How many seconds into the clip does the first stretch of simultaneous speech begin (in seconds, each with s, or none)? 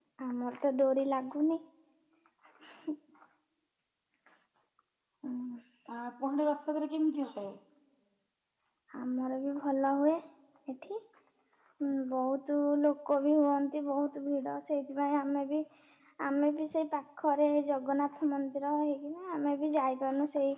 none